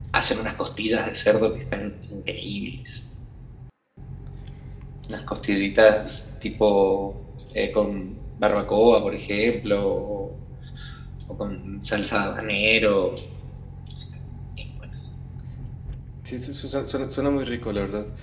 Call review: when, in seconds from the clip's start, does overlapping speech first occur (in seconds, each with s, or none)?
none